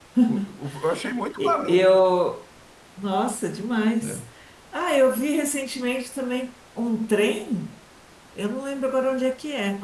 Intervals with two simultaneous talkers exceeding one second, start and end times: none

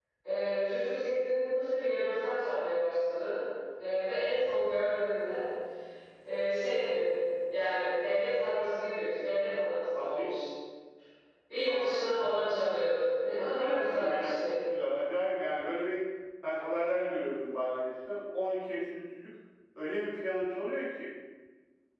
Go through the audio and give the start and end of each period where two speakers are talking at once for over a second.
13.3-14.5

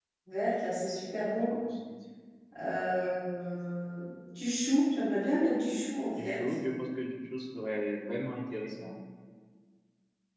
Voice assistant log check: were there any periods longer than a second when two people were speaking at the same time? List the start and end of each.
none

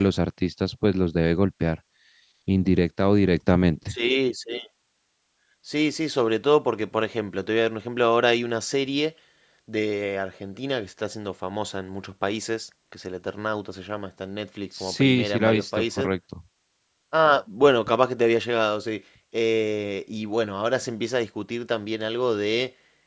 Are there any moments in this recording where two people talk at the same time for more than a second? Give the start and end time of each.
14.8-16.1

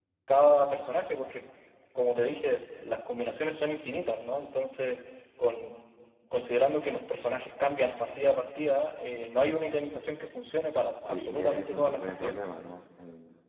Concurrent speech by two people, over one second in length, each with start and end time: 11.1-12.3

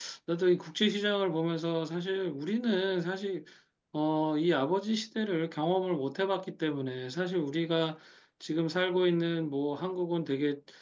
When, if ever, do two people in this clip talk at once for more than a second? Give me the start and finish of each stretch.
none

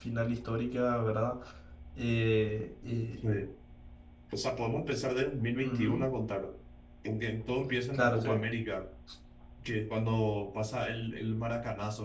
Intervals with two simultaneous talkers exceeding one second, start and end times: none

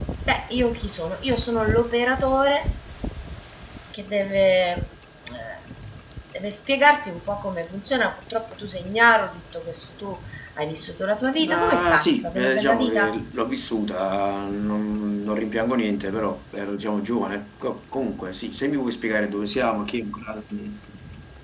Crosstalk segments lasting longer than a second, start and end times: 11.4-13.2

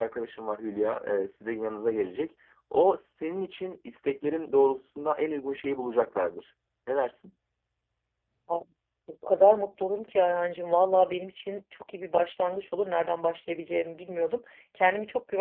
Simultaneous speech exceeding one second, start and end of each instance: none

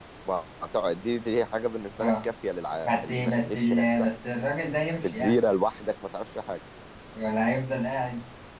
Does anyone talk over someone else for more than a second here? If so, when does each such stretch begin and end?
2.9-4.1

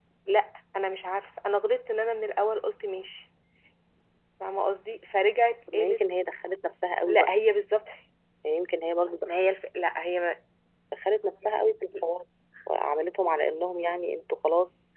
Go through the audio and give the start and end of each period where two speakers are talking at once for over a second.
none

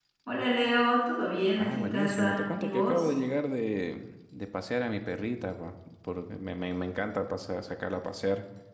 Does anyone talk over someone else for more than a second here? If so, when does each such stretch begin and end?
1.6-3.1

